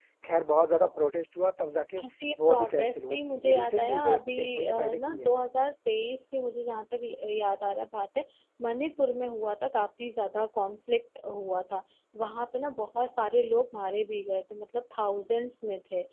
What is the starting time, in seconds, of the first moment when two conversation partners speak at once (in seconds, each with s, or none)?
2.5 s